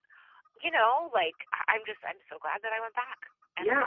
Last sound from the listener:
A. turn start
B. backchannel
A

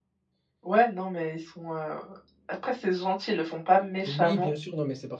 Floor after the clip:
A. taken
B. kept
A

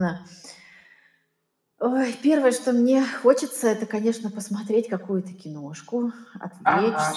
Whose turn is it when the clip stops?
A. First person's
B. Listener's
B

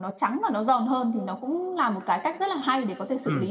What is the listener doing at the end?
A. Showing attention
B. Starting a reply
B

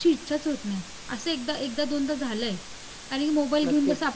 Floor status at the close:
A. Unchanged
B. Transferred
A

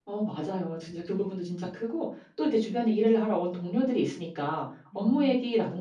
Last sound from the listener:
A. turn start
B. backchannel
B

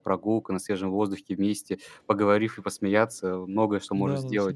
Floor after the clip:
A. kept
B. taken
B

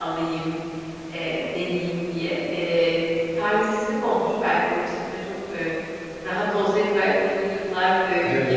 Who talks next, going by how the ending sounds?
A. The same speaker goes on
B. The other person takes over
A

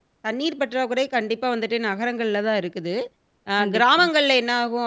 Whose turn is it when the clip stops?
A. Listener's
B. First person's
B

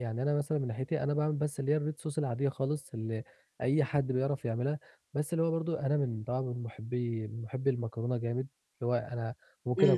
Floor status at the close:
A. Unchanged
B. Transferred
A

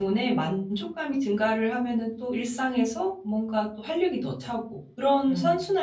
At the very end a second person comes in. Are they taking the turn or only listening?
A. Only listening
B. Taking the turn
A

